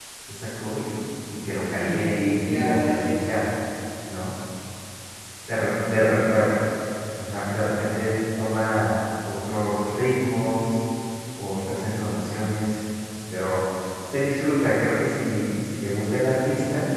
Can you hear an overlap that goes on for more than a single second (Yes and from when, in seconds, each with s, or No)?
Yes, from 1.8 s